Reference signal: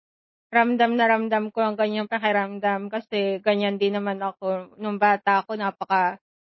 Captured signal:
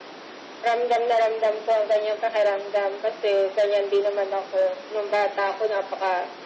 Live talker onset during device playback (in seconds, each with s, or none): none